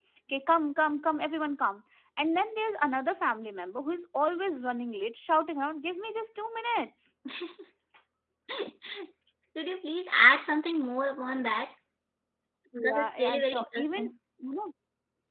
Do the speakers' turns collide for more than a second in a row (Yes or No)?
Yes